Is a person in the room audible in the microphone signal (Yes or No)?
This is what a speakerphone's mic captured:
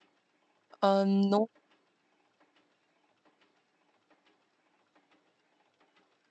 Yes